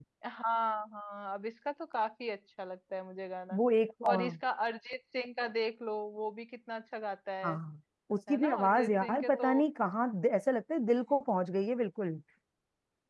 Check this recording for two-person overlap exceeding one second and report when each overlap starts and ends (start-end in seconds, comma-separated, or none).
8.3-9.5